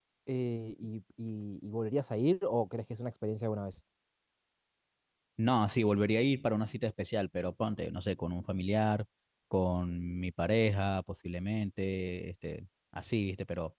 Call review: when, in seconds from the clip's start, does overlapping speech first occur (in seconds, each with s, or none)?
none